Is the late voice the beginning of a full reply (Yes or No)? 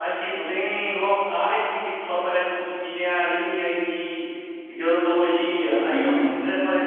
No